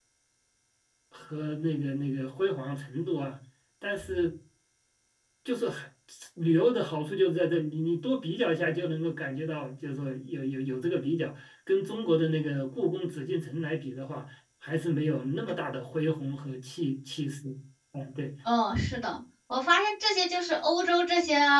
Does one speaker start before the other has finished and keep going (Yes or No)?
No